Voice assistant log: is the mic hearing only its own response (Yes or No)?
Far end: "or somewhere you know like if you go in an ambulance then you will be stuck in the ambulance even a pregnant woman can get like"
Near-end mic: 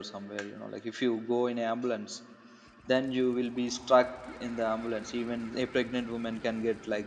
Yes